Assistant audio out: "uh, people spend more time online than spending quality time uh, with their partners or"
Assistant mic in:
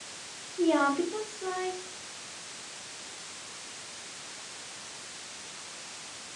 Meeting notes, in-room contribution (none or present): present